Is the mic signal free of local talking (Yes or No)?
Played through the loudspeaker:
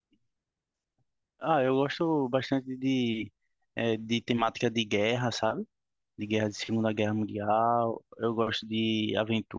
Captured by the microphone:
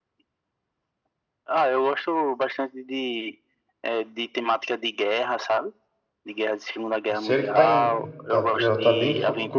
No